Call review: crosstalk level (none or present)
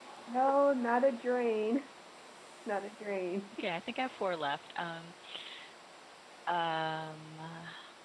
none